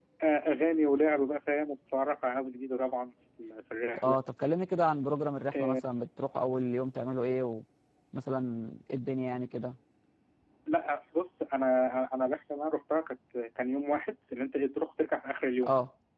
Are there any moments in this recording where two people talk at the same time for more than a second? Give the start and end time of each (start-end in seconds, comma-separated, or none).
none